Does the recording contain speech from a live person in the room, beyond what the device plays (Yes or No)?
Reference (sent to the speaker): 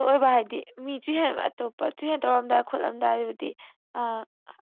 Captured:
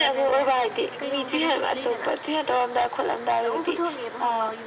Yes